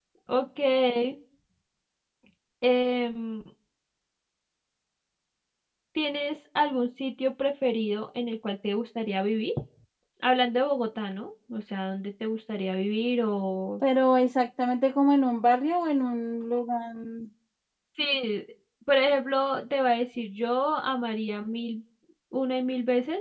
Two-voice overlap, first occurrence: none

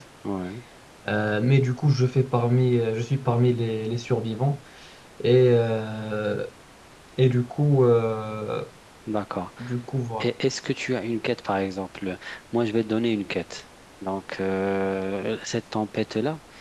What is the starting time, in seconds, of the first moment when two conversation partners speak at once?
none

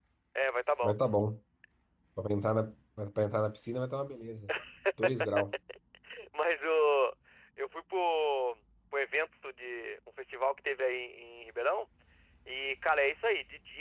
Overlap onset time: none

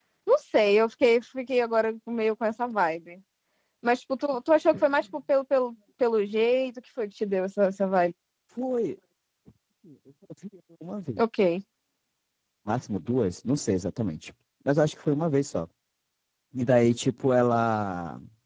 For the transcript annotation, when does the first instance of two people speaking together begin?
none

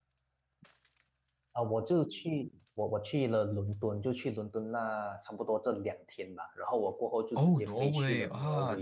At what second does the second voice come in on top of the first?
7.4 s

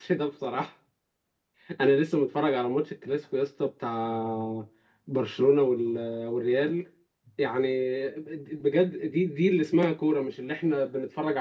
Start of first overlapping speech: none

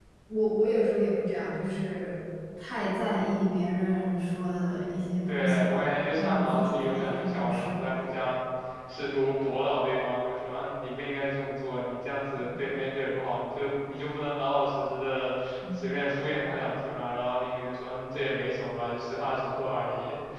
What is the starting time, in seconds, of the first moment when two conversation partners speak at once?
5.3 s

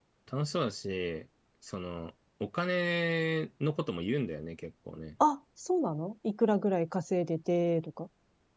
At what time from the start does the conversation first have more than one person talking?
none

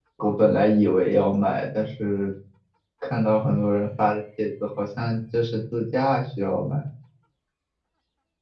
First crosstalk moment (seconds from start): none

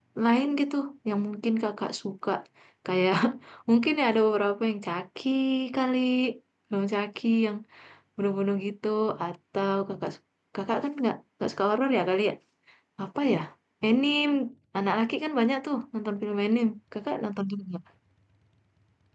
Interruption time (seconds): none

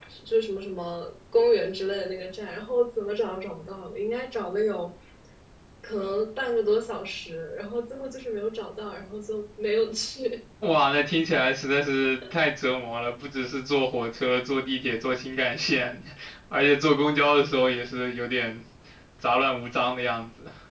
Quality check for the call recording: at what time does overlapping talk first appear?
none

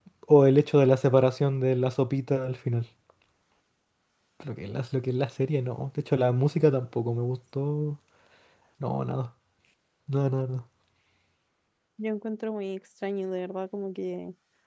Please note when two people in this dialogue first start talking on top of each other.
none

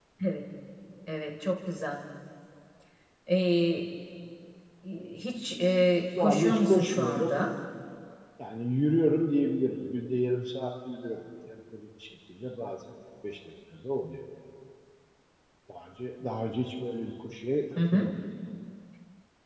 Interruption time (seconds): 6.2 s

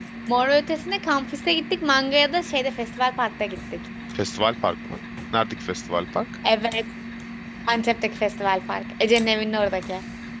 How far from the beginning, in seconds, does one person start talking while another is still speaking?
none

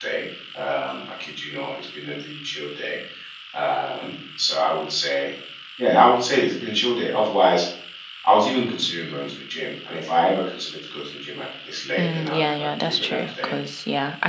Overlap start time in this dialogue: 12.0 s

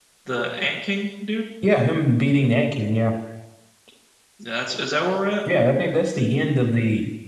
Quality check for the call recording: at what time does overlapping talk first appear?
none

